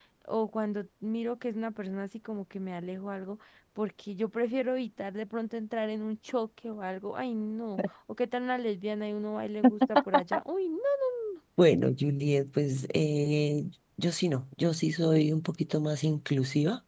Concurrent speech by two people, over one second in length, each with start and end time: none

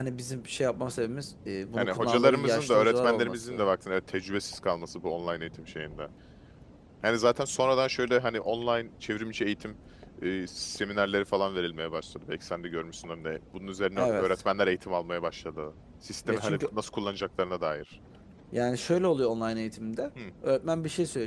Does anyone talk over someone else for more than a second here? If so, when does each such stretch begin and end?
1.8-3.7

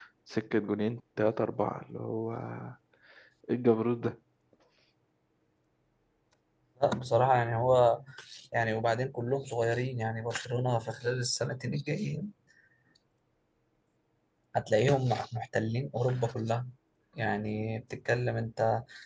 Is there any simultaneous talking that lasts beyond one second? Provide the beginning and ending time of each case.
none

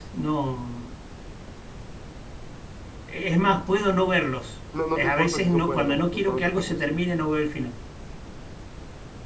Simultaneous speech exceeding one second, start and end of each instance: 5.0-7.0

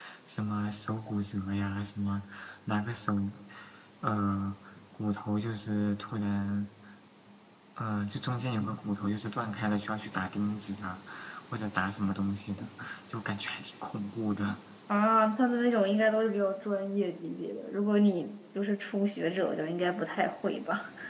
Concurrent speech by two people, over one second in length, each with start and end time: none

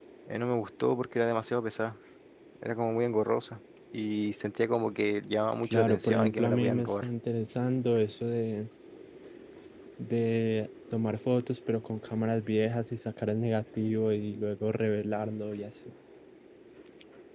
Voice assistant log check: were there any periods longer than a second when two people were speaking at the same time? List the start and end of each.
5.6-7.0

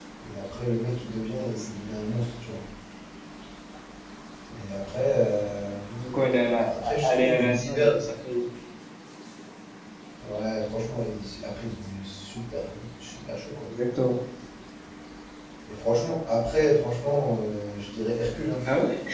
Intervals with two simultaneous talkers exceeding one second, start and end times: 6.7-8.0

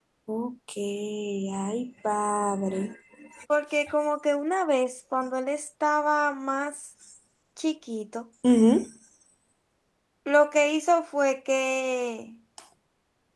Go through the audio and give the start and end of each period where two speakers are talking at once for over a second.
none

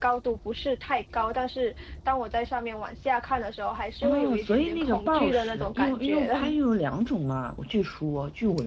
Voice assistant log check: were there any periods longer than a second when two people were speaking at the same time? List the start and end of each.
4.0-6.6

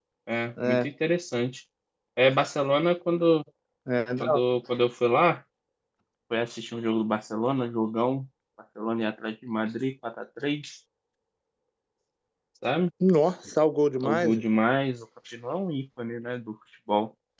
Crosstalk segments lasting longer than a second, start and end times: none

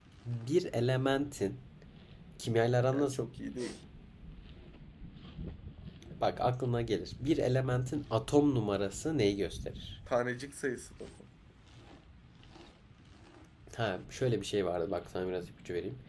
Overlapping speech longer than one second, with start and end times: none

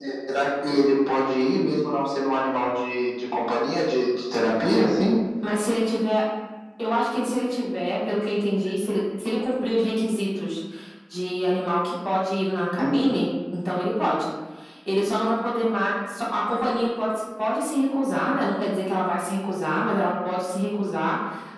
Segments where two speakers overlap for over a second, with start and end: none

